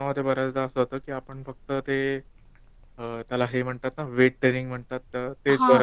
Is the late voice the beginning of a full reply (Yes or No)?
Yes